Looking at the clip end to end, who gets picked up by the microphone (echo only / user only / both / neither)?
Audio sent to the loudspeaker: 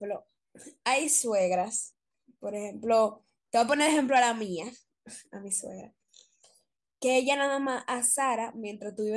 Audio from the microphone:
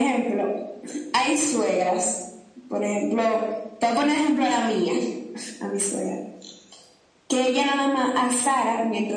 echo only